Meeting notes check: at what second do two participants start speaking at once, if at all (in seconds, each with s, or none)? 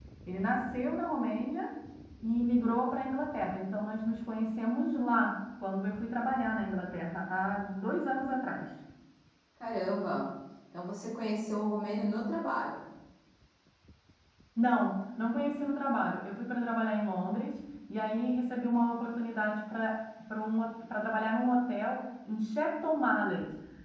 none